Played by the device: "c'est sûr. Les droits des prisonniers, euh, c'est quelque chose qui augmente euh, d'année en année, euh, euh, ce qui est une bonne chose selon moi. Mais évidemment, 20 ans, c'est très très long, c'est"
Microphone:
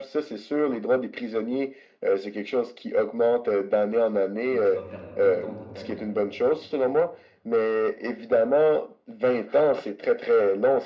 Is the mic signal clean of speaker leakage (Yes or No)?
No